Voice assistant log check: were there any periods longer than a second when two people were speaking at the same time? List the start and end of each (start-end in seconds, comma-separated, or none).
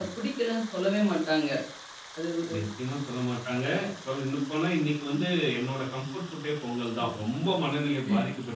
none